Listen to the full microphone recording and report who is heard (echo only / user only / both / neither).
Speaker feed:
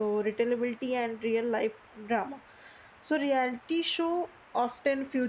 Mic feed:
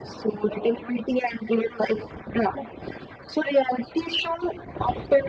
echo only